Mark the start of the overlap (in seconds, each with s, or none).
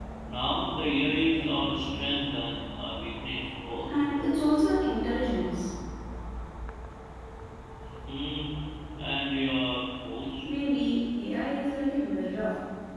none